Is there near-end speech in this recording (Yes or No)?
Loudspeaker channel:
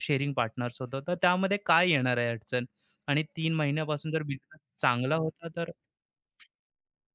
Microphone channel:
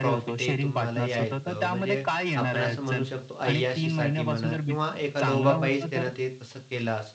Yes